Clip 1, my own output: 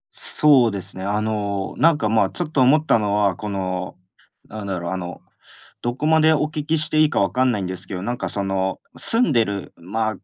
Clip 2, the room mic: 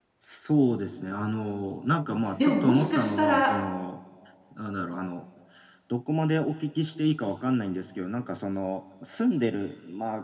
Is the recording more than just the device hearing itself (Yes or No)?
Yes